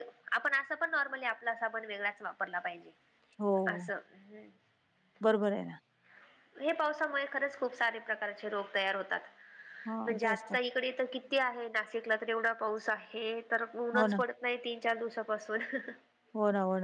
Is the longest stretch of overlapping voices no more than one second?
Yes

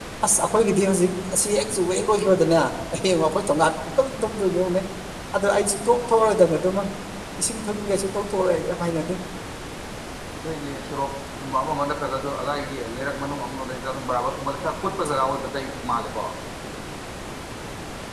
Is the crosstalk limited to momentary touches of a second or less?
Yes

